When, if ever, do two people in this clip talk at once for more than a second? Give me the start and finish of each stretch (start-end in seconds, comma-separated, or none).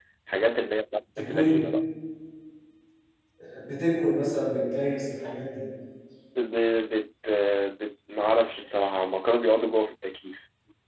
none